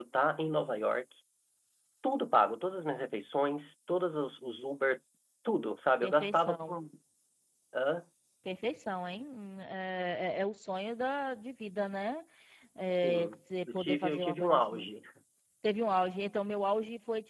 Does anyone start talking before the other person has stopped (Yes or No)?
Yes